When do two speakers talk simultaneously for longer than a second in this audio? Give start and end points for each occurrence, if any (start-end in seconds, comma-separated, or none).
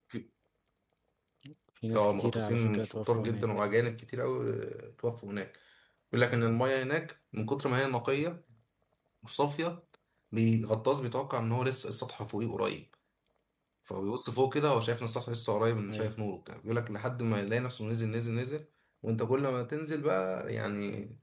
1.9-3.5